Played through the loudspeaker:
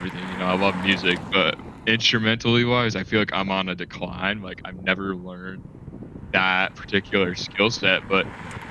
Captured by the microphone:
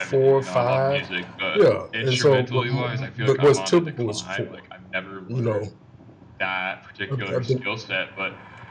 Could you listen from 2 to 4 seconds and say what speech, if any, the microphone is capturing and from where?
both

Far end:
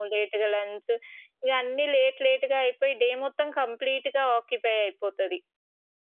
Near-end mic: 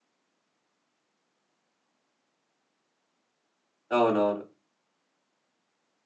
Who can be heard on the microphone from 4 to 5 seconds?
user only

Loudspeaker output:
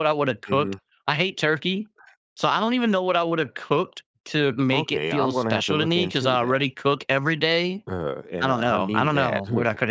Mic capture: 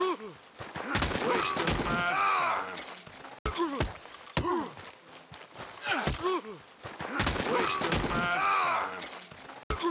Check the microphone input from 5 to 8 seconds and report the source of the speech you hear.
neither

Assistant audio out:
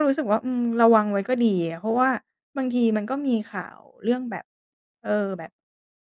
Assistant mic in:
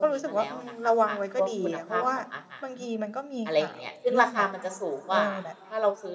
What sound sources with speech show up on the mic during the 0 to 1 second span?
both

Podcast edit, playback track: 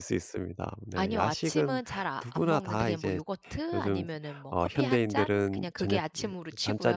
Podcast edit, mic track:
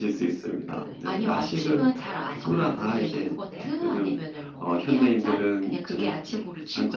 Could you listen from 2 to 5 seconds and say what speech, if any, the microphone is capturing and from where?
both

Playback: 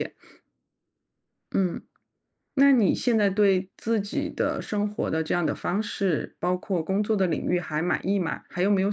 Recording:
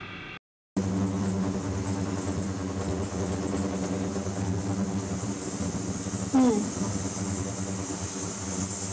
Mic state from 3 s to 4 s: neither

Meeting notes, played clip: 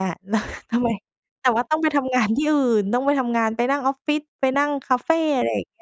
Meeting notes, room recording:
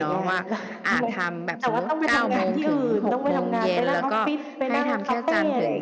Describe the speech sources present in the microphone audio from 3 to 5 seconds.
both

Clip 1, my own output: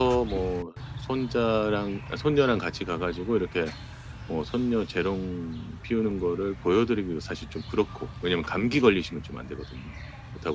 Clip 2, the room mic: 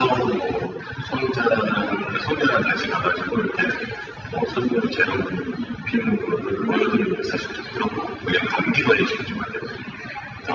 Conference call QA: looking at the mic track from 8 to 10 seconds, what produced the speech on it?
echo only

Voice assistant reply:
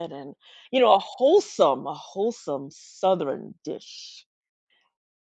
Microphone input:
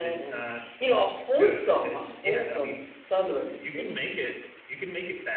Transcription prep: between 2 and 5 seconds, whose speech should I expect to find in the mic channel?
both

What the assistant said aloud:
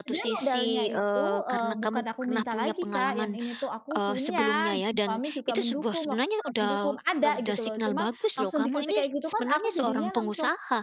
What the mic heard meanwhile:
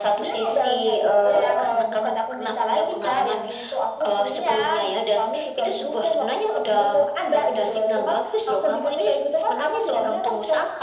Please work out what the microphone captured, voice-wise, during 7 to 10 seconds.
echo only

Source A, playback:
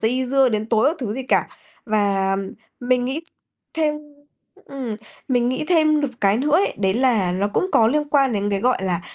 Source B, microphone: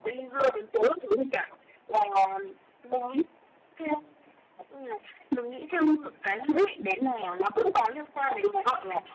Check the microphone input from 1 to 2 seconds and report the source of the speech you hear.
echo only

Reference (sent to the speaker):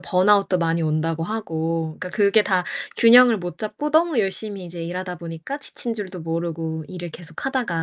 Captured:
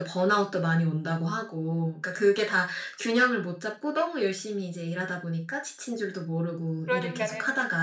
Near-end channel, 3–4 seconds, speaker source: echo only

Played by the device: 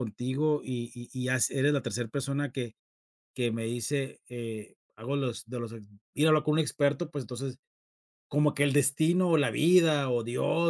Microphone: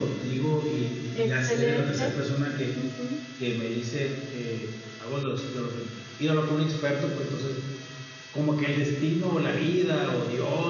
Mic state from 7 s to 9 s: echo only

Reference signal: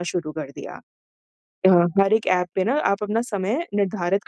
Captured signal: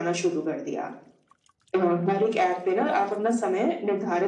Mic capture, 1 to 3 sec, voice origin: echo only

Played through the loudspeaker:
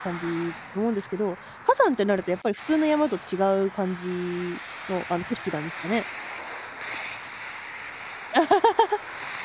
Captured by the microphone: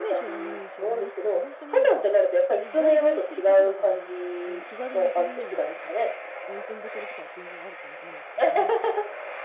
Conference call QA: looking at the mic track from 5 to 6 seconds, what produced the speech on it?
both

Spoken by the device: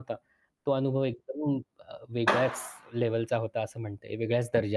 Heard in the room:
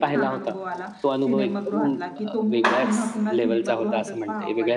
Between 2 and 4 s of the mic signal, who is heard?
both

